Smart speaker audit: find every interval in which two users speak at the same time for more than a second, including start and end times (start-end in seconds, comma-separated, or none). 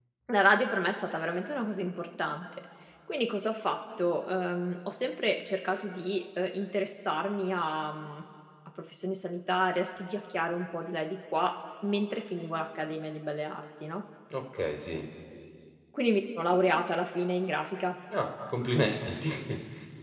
none